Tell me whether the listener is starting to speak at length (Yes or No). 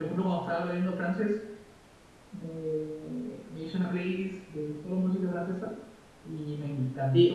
Yes